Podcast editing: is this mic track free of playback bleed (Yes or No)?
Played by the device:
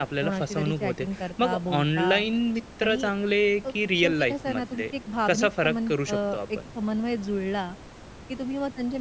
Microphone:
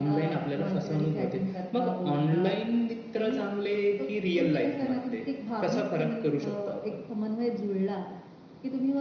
No